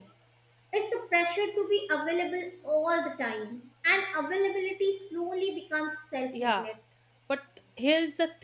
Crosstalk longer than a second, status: none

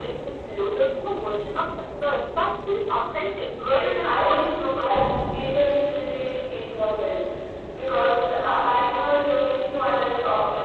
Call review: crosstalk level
present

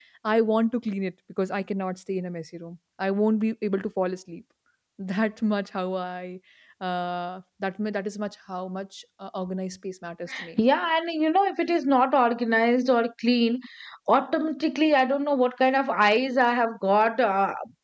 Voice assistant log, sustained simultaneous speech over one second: none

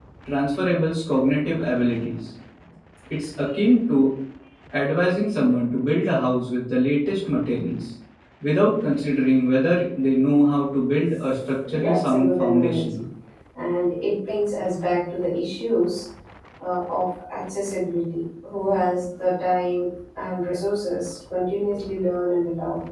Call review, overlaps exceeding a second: present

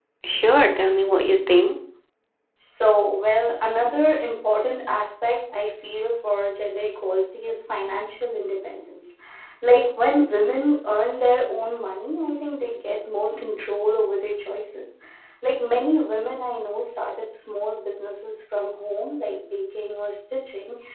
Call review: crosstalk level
none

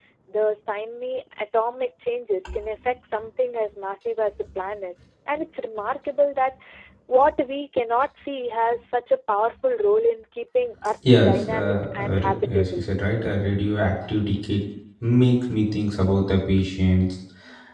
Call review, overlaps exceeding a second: present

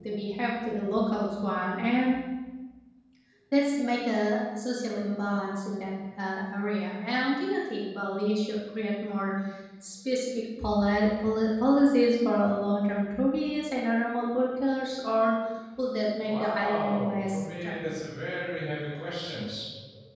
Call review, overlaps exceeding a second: present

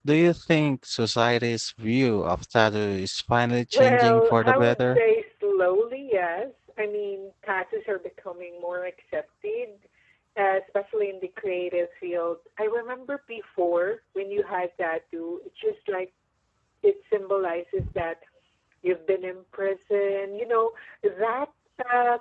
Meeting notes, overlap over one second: present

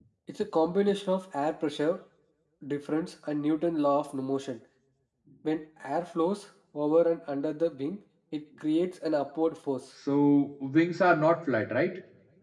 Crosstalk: none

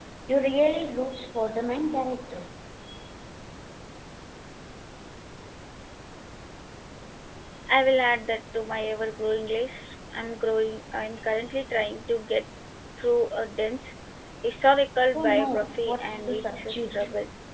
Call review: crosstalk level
present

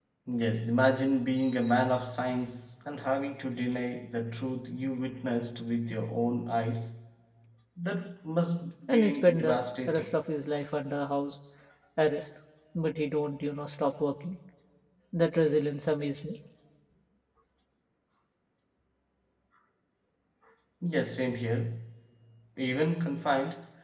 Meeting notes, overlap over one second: present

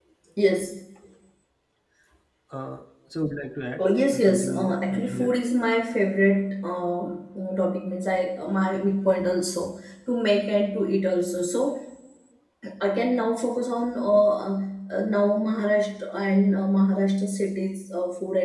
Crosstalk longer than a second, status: present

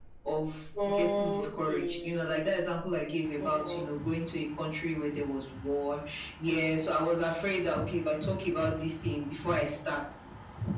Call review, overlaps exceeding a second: present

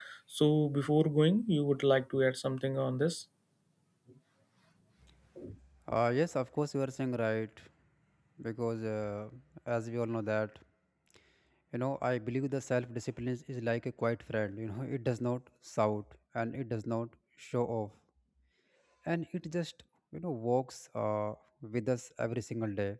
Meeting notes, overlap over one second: none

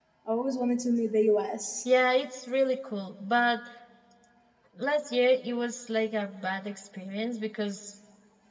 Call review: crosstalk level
none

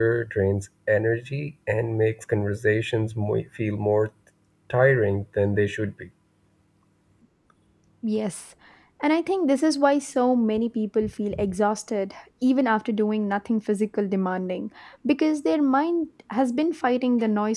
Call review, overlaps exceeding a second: none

